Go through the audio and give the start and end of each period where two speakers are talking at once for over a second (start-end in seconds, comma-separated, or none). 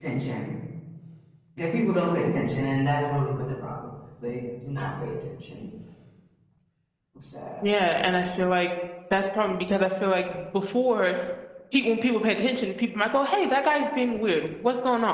none